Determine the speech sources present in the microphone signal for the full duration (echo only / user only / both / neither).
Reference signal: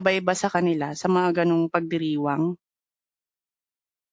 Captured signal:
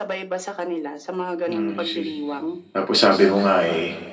both